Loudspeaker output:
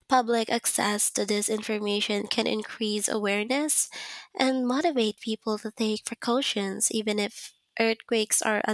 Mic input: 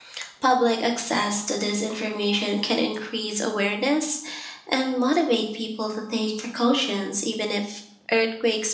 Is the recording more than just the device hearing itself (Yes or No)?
No